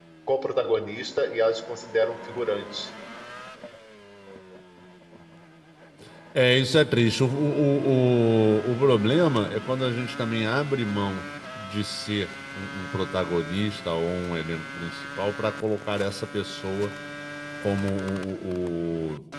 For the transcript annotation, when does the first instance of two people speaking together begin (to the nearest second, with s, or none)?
none